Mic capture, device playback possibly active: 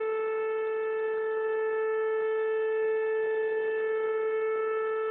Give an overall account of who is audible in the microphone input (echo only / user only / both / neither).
neither